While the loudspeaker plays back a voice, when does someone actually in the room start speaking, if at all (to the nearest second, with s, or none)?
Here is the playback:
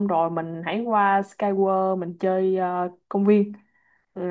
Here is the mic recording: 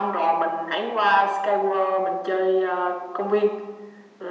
none